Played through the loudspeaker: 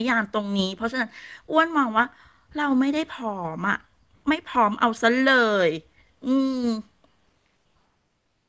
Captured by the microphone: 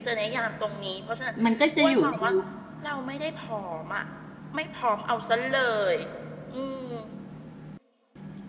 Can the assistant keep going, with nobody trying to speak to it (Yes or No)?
No